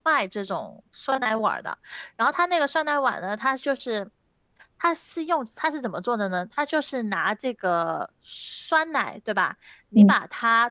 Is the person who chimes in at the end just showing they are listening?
Yes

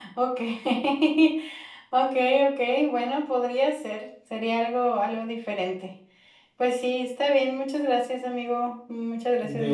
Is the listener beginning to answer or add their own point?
Yes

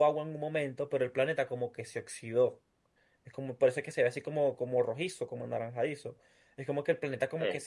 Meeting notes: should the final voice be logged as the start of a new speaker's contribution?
No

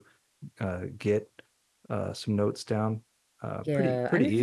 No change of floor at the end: No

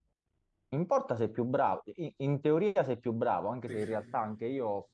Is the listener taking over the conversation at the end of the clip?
No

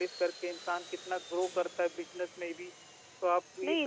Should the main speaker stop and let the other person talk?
Yes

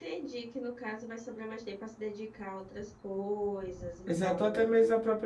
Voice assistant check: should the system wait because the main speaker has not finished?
No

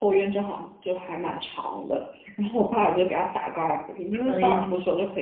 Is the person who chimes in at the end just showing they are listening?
Yes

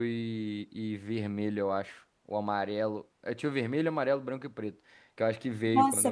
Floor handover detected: Yes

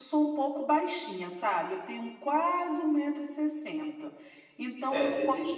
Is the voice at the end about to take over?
Yes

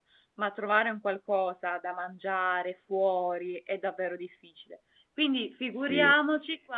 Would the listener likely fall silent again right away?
Yes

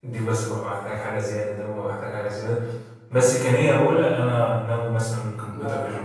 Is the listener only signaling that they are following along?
No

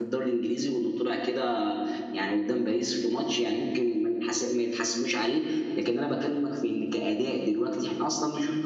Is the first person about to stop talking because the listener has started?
Yes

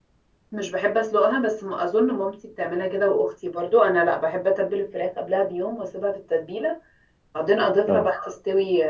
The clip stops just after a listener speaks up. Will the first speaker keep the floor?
Yes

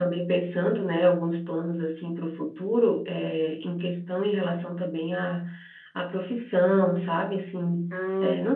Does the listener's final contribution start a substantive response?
No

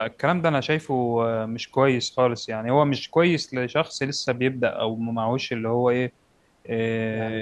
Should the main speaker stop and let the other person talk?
No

